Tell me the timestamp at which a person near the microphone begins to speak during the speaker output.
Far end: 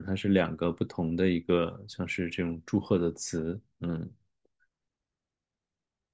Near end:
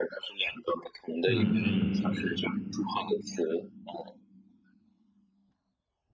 1 s

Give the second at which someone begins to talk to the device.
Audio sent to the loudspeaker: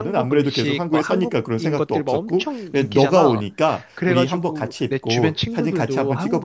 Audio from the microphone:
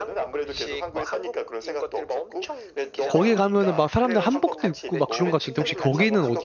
3 s

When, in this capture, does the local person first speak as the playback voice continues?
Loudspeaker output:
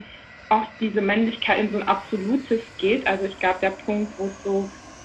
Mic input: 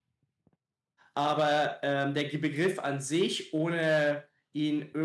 1 s

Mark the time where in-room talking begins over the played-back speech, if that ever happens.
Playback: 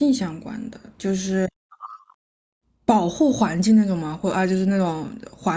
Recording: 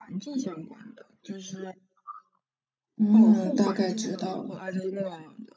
3 s

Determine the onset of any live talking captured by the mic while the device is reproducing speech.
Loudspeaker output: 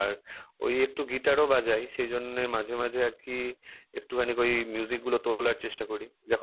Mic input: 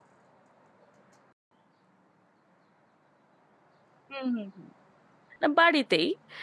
4 s

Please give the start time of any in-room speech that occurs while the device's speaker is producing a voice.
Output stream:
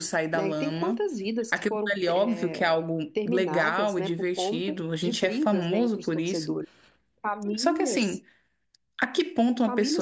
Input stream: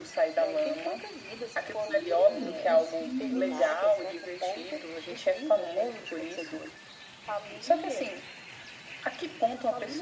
2 s

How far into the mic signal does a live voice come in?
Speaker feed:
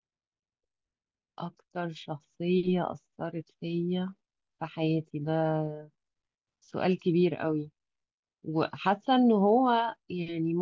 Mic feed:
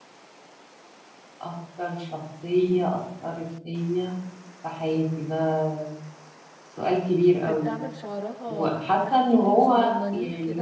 7 s

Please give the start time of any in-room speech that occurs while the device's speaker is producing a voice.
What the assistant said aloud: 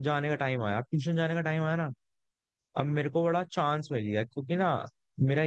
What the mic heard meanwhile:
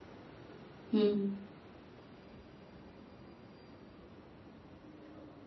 1 s

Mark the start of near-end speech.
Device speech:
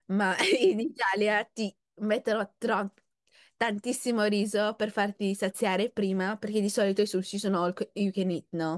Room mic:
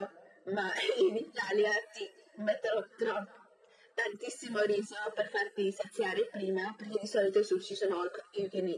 none

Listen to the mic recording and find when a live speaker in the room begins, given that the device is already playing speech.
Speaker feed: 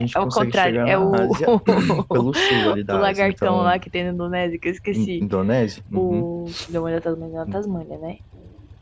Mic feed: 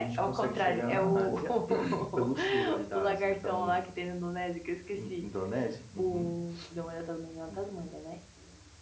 none

